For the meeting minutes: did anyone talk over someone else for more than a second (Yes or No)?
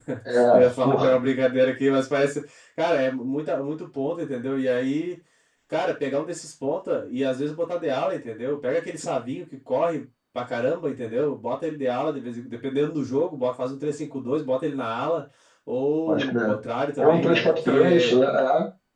Yes